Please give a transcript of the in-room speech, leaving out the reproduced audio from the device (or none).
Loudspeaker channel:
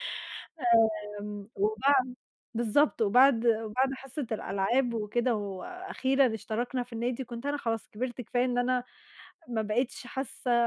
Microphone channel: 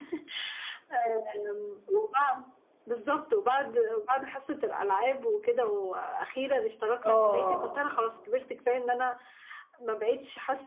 آه.